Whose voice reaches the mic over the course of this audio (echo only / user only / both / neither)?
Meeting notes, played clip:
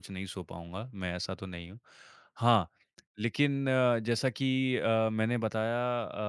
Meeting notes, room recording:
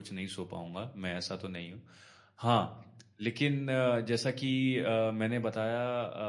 echo only